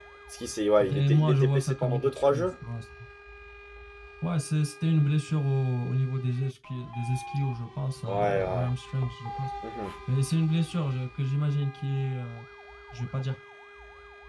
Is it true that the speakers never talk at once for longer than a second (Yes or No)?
No